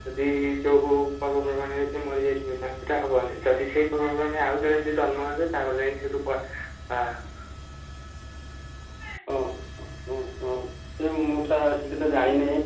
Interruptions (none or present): none